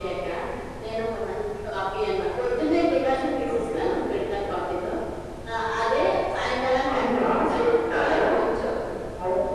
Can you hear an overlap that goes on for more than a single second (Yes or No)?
Yes